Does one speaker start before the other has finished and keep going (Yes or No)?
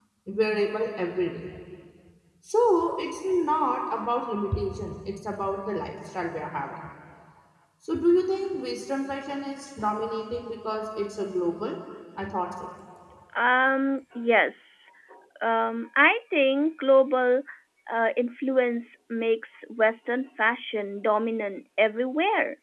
No